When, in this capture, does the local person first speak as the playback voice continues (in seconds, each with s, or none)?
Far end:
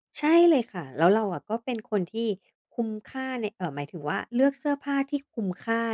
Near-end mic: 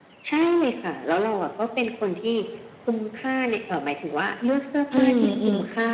4.9 s